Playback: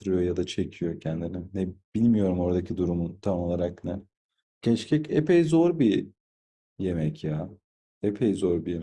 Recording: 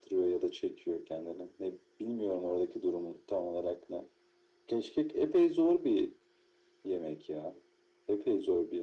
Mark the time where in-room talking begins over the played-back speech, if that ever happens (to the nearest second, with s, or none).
none